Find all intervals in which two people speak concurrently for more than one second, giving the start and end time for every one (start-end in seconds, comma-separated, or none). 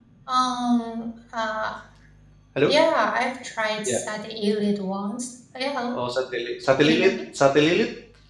none